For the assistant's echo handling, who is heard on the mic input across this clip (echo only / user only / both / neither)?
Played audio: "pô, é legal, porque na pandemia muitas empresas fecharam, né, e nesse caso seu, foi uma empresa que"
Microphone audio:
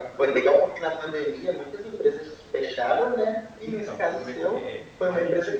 both